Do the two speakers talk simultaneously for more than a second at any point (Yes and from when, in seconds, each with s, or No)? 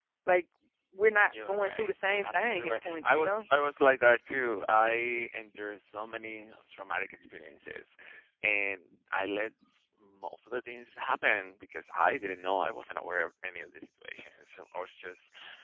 Yes, from 1.3 s